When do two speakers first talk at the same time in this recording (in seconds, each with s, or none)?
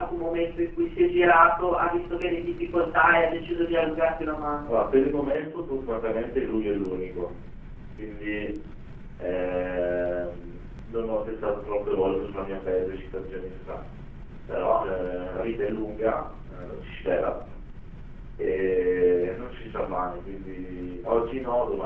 none